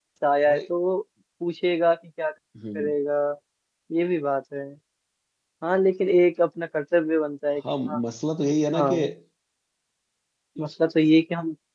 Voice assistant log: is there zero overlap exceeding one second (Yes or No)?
Yes